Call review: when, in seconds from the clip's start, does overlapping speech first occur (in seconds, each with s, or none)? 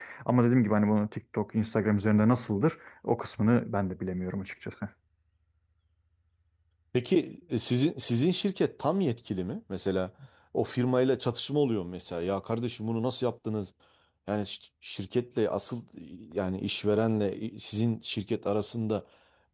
none